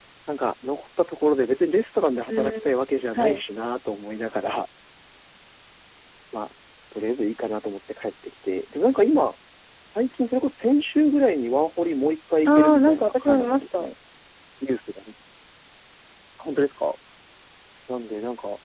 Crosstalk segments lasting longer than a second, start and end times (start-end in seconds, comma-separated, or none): 12.5-13.9